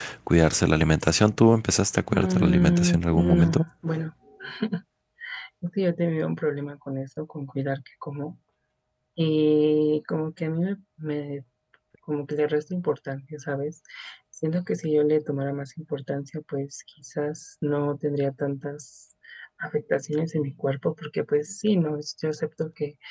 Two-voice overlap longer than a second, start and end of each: 2.1-3.6

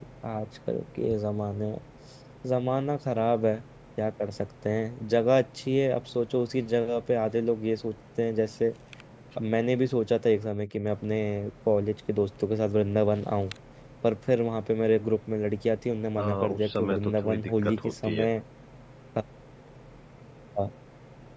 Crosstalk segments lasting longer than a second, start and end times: 16.2-18.3

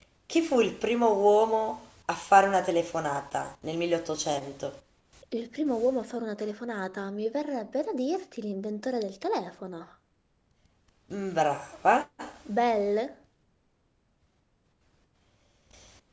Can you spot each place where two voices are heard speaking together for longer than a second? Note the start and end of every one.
none

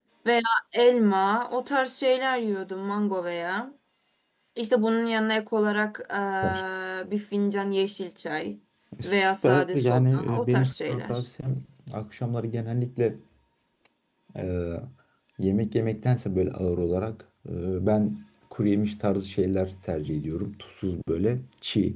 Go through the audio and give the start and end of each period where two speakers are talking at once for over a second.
9.0-11.2

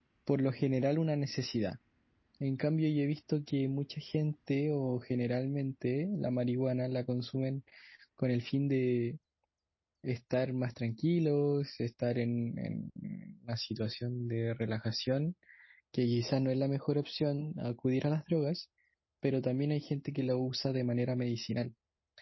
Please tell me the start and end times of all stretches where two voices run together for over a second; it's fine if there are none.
none

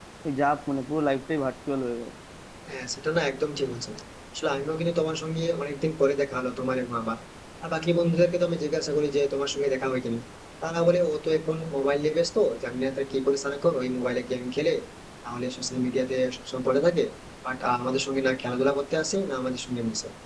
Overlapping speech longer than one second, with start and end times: none

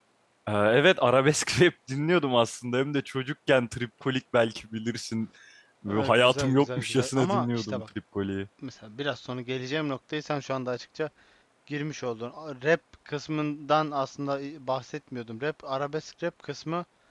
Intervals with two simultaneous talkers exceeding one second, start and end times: 5.9-7.8

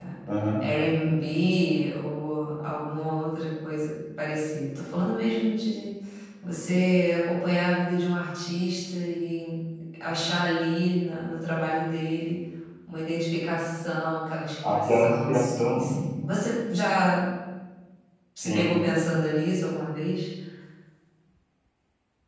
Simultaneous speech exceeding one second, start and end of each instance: 14.7-15.9

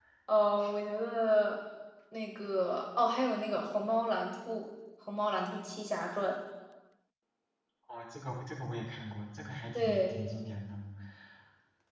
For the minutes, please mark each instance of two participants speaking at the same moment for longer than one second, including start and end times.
none

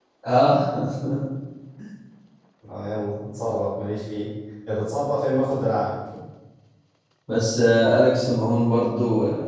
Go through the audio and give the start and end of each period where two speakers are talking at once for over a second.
none

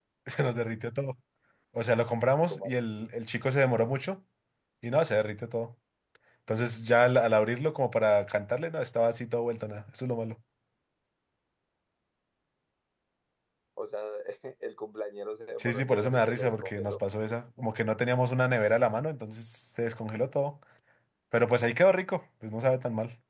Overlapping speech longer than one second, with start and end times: 15.6-17.0

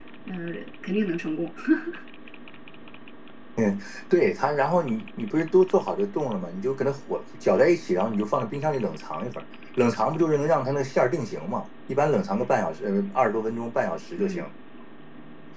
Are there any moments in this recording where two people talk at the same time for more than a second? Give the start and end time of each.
none

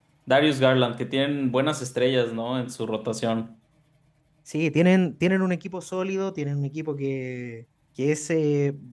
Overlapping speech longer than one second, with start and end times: none

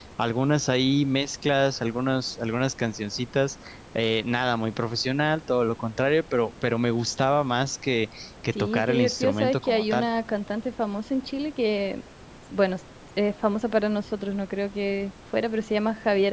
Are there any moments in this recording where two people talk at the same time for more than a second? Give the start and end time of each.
8.6-10.1

